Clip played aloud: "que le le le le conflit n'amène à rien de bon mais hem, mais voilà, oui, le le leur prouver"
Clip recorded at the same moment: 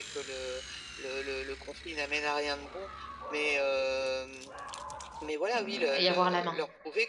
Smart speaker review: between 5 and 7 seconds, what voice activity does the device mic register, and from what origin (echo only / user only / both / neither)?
both